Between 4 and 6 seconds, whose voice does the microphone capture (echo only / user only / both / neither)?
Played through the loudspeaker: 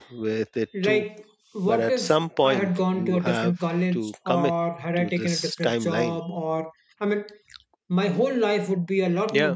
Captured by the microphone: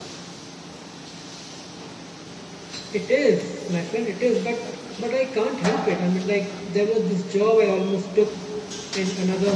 user only